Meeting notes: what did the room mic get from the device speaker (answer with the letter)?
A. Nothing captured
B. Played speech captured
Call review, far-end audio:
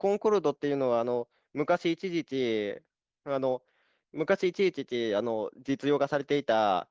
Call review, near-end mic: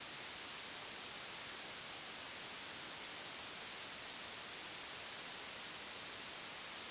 A